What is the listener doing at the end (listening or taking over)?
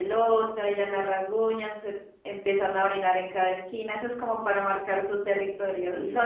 listening